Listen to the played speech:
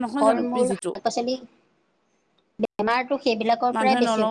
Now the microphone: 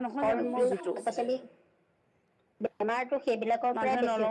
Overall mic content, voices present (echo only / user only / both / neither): both